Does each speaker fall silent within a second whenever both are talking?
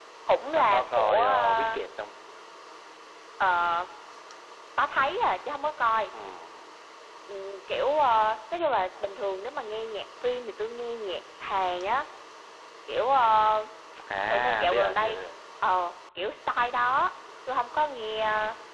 No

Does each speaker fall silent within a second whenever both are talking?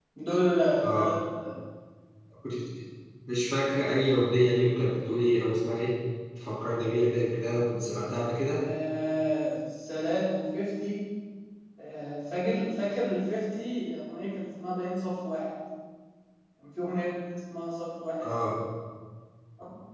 Yes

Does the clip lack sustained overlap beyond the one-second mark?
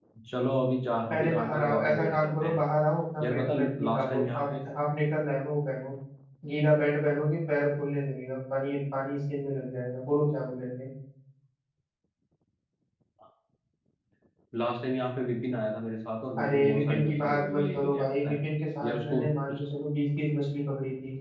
No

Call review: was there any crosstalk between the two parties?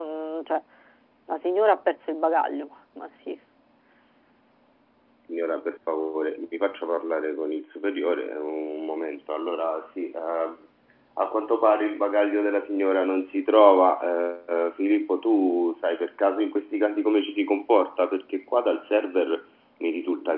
No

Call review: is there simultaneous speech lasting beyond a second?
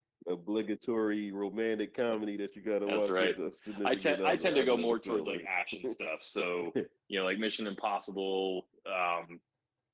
Yes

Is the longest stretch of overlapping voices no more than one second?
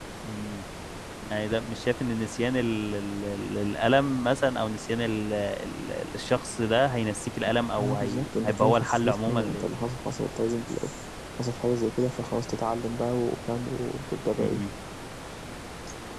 No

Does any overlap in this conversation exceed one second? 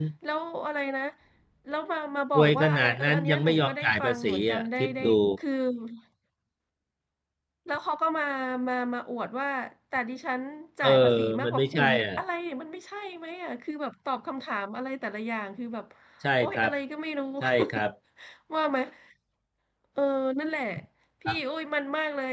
Yes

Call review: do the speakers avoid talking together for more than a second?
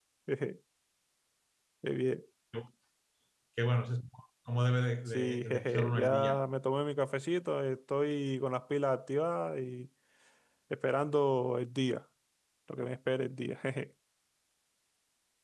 No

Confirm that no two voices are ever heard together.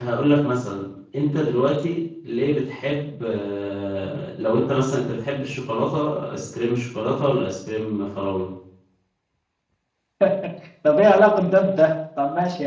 Yes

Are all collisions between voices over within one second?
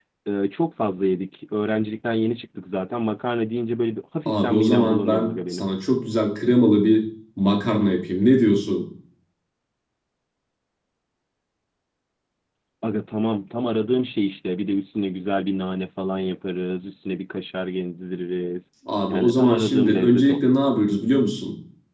No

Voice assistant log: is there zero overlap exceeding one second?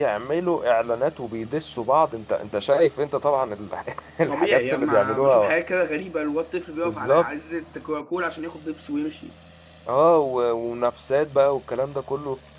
No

